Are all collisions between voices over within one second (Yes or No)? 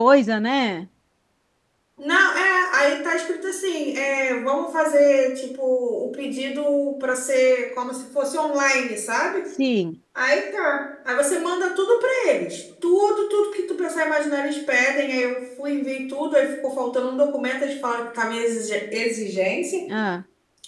Yes